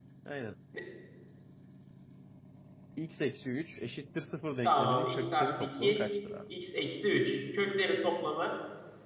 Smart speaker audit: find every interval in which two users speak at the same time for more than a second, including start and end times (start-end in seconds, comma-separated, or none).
4.6-6.0